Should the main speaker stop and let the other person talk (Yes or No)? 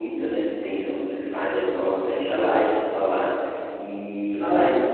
No